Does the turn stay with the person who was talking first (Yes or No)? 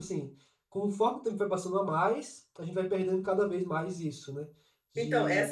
No